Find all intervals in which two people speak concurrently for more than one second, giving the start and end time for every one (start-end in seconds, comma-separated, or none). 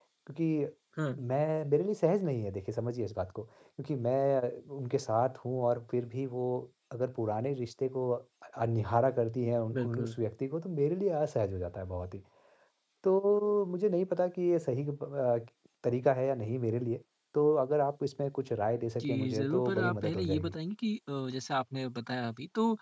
19.0-20.5